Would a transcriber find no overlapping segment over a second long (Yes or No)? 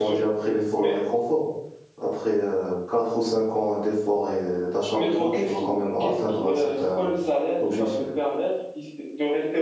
No